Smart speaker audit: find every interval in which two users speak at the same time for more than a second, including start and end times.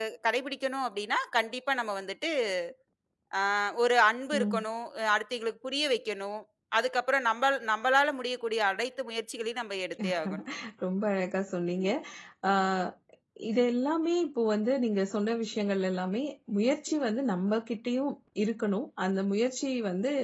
none

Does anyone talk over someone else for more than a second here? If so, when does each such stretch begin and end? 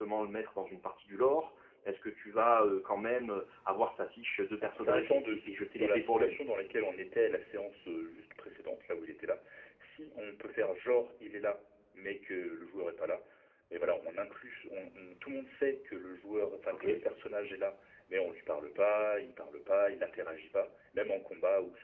4.8-6.3

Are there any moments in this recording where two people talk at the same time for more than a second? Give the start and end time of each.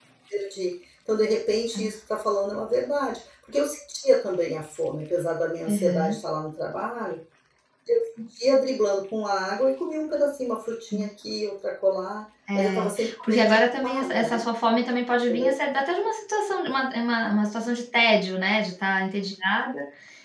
12.5-14.5

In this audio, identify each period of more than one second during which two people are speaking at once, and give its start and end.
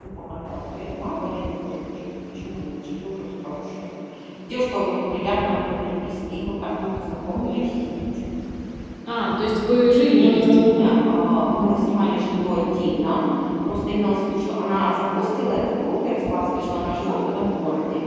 none

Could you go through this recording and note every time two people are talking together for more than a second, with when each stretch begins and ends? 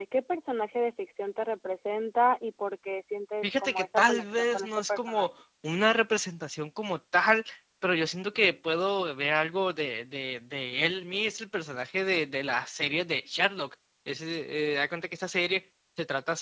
3.4-5.3

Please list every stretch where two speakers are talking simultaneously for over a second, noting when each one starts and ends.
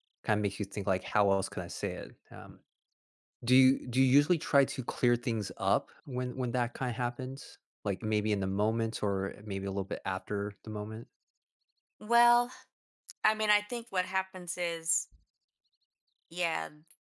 none

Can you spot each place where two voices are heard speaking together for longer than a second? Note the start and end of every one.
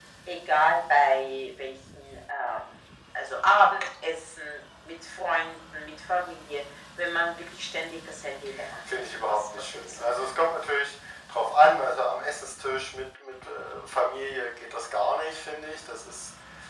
9.0-10.5

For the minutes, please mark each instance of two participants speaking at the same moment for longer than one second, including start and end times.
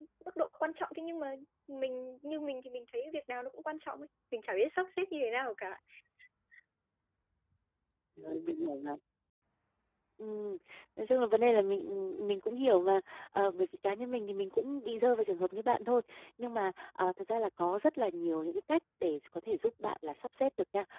none

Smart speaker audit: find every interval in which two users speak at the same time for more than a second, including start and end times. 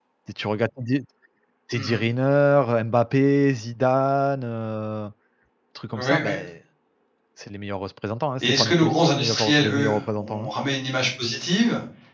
8.4-10.5

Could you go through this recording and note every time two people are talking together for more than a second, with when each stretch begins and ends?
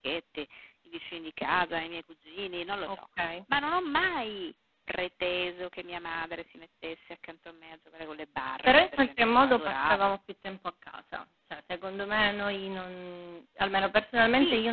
8.6-10.1

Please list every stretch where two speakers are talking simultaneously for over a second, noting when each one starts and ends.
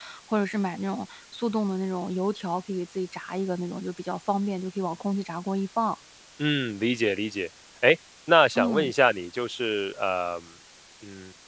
none

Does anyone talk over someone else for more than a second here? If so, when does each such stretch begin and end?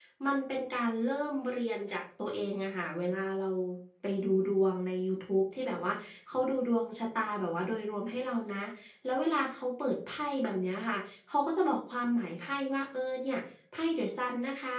none

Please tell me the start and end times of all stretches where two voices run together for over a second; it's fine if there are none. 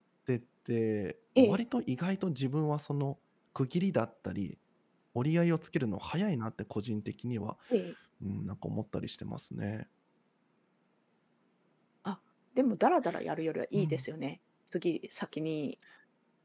none

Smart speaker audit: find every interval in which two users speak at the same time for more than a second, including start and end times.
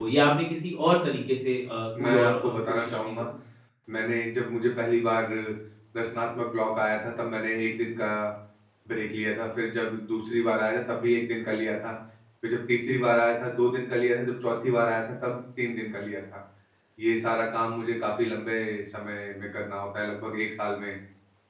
2.0-3.2

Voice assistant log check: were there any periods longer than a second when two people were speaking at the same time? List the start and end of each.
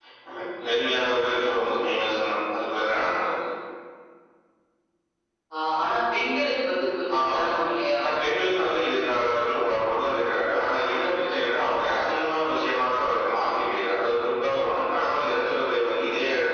none

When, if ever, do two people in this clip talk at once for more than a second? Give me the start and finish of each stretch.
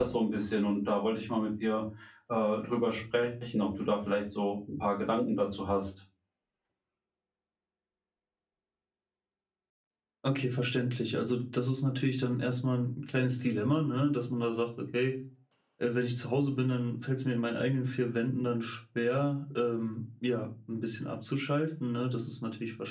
none

